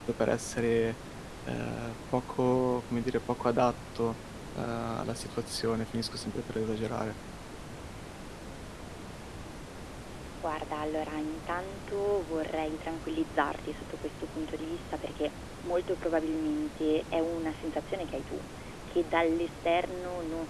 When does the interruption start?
none

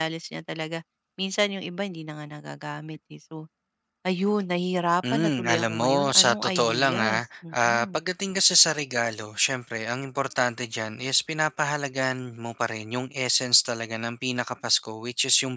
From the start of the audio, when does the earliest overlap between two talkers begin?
5.0 s

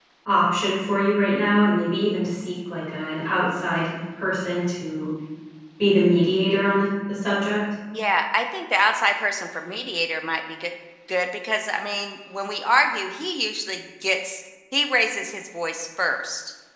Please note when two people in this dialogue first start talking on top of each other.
none

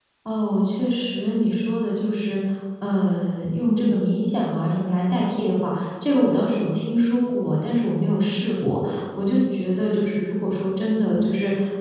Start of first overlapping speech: none

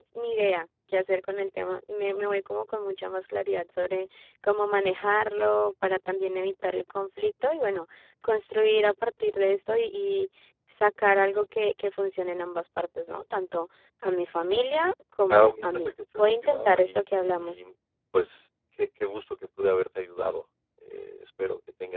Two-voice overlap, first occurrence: 15.3 s

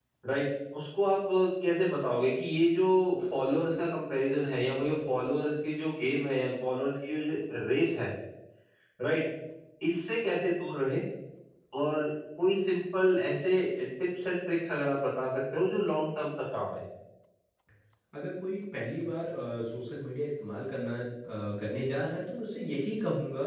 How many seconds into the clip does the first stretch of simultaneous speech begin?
none

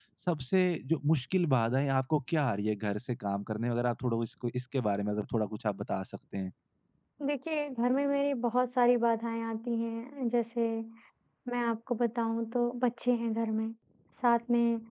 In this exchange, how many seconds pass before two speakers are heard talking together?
none

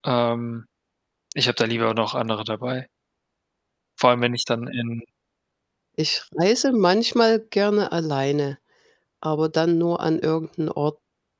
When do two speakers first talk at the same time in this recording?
none

